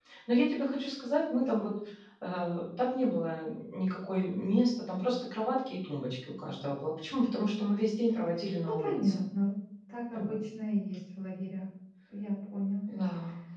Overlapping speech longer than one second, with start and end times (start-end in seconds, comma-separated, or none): none